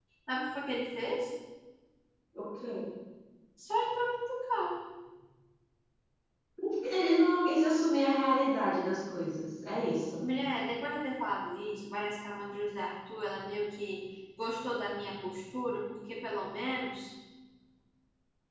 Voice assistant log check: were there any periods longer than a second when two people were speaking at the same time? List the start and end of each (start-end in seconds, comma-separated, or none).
none